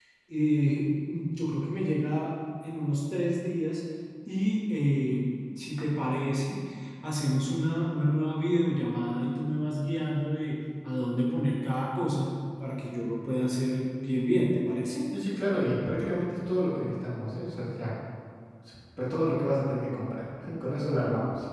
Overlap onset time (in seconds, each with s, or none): none